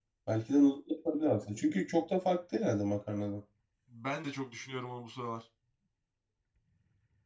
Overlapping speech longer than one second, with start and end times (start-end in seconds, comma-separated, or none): none